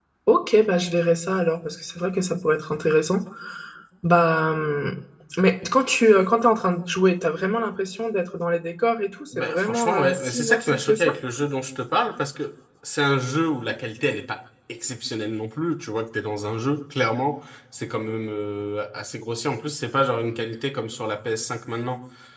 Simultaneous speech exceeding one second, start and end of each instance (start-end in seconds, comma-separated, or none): 9.4-11.2